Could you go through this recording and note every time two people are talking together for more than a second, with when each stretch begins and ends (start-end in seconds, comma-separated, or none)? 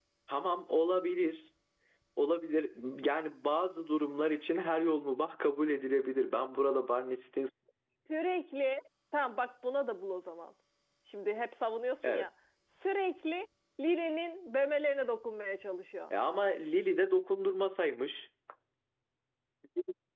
none